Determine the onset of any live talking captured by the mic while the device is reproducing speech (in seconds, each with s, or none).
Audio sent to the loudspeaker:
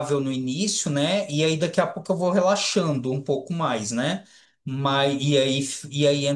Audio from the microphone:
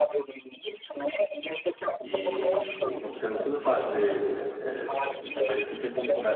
2.0 s